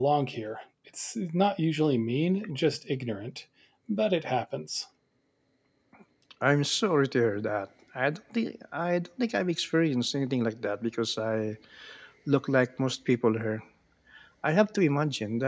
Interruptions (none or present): none